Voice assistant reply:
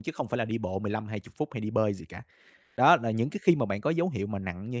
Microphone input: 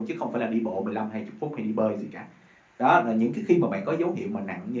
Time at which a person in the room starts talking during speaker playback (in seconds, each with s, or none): none